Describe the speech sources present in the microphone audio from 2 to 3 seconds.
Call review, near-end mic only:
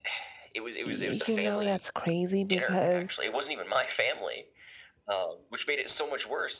both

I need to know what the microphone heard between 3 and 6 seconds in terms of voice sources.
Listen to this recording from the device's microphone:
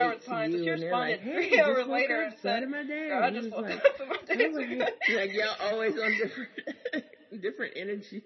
both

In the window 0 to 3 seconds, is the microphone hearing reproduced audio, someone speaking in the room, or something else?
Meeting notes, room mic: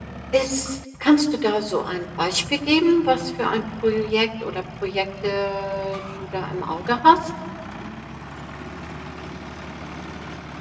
user only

